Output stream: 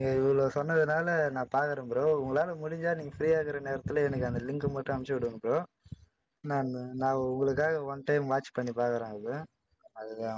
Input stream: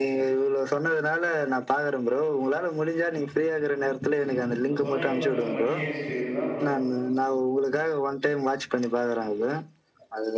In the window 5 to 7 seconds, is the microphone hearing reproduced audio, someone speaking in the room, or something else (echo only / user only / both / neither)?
both